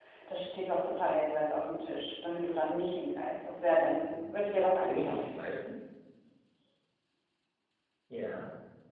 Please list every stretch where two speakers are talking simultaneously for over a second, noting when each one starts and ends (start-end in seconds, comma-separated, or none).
4.0-5.3